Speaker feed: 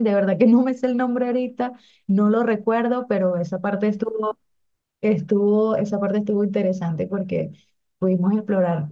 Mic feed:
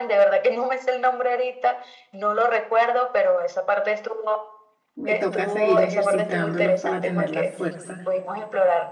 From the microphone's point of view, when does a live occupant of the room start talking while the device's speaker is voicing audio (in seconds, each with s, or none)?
5.0 s